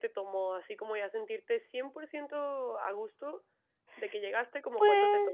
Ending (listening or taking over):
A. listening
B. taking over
B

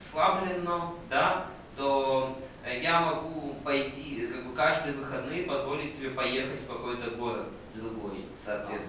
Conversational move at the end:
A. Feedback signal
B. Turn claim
B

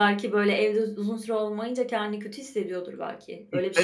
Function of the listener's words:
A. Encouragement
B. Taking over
B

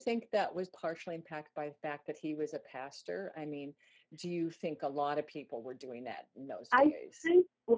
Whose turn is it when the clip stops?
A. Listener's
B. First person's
A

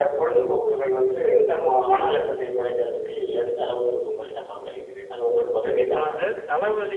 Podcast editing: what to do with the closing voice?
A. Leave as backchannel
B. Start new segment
B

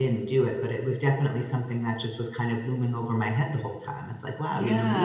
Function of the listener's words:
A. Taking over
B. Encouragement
B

